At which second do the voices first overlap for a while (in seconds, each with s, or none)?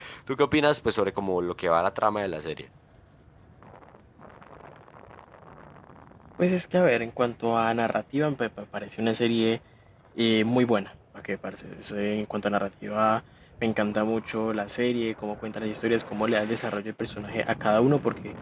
none